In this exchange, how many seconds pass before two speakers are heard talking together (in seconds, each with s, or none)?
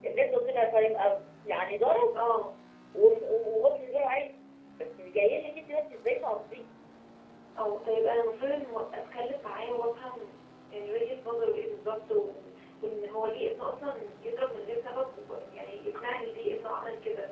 none